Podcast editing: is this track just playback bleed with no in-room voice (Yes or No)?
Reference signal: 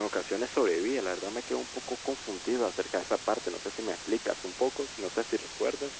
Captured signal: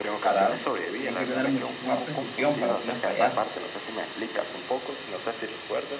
No